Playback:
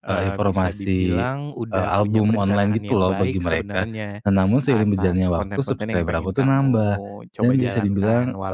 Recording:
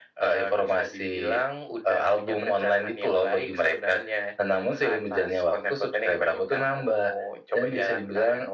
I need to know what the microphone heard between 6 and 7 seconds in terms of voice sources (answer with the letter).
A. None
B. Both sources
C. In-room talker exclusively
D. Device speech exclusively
D